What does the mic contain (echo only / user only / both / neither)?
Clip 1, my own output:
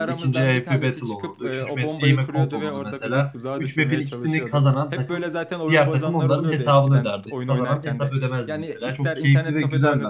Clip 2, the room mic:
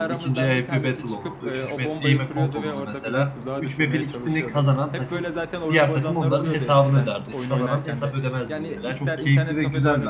echo only